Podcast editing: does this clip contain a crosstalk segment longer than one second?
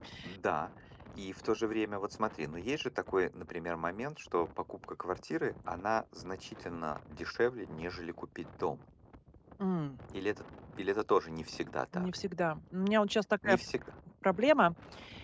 No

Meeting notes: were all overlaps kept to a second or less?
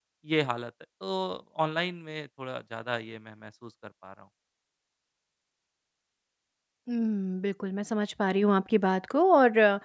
Yes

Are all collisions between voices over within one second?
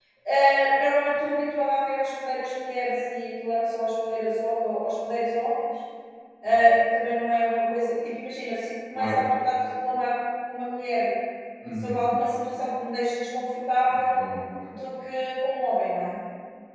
Yes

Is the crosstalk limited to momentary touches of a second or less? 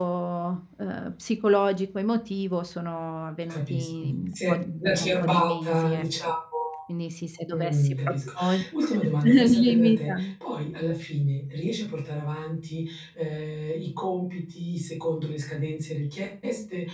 No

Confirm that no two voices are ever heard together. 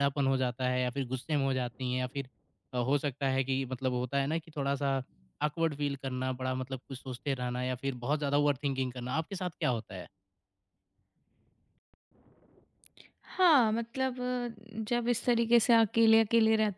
Yes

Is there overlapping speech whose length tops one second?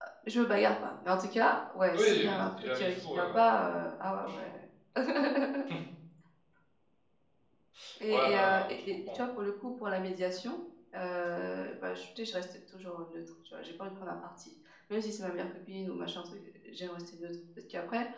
Yes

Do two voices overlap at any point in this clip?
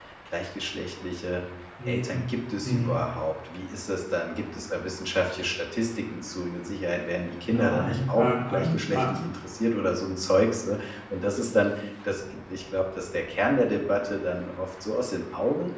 Yes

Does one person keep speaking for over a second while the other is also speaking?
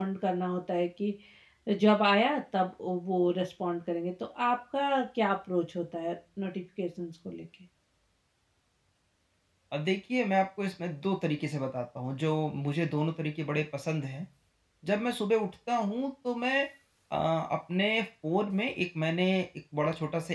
No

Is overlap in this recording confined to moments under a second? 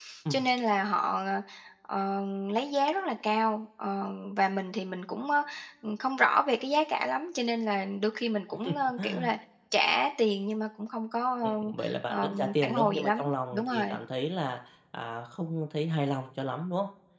No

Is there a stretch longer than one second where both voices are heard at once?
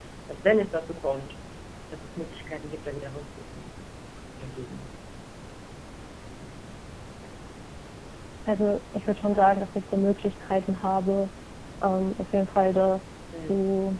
No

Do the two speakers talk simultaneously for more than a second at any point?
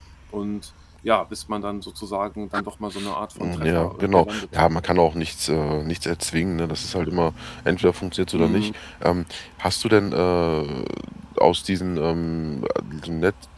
Yes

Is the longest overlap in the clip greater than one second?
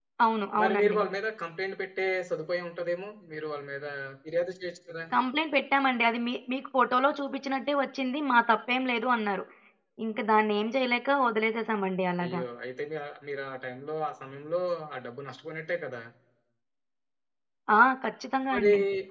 No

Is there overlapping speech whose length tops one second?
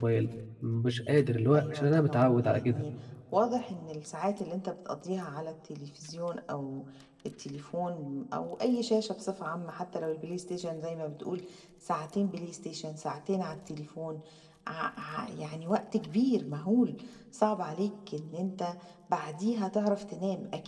Yes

